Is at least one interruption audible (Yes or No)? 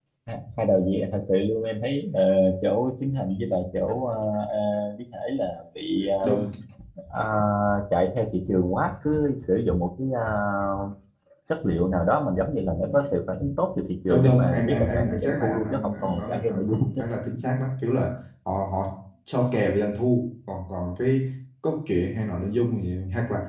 Yes